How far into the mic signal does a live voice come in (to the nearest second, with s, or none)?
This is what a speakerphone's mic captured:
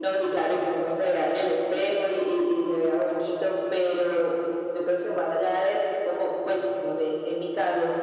none